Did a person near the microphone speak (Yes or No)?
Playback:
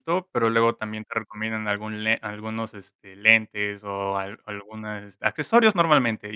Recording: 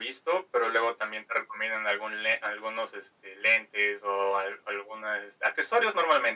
No